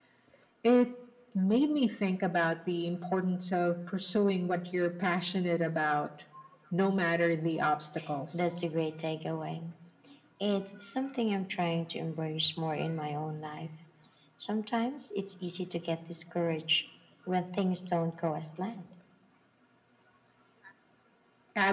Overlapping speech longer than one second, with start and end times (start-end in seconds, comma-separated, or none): none